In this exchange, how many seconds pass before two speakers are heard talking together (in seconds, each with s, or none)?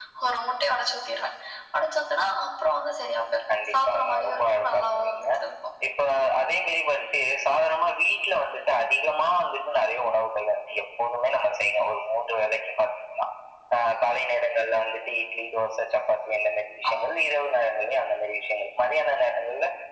3.7 s